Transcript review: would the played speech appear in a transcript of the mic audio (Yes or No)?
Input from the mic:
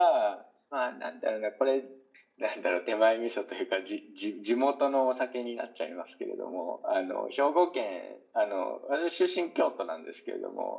Yes